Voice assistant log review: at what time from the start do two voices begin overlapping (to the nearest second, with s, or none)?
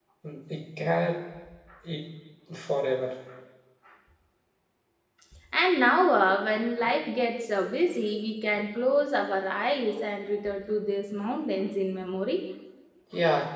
none